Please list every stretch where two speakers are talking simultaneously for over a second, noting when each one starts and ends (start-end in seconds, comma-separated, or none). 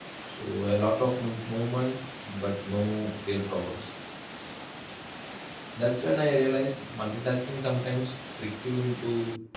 none